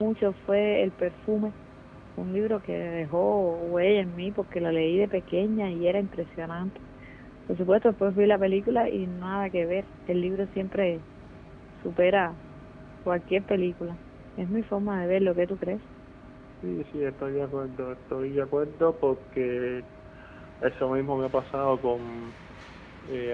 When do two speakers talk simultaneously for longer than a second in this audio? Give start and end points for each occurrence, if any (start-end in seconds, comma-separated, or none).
none